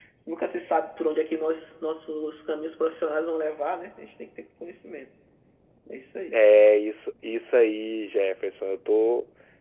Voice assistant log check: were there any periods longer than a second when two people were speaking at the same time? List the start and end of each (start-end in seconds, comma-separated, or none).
none